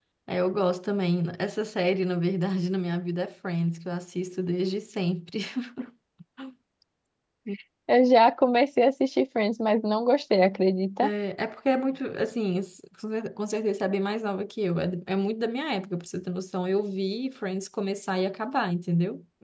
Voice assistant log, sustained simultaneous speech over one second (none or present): none